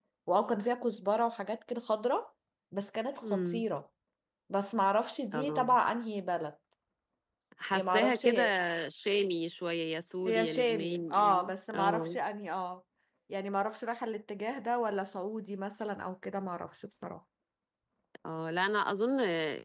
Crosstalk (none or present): present